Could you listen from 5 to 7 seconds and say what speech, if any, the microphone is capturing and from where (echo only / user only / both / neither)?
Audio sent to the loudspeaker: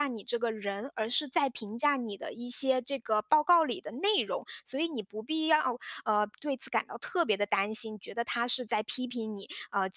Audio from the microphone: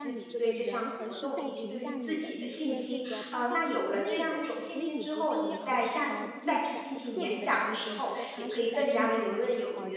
both